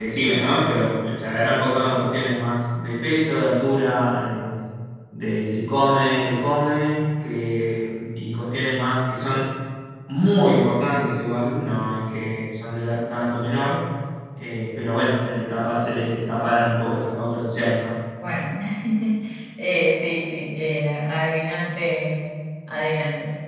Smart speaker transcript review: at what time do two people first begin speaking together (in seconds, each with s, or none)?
none